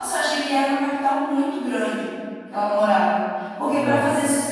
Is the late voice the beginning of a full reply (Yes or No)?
No